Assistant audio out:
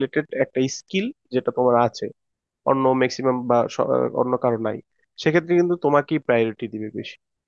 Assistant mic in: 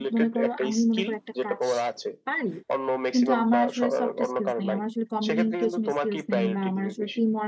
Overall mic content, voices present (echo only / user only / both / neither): both